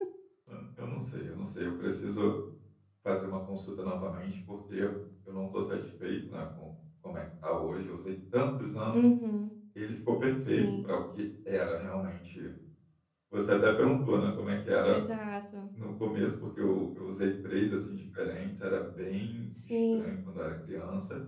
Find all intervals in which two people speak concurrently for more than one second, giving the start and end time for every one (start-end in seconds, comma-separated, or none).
none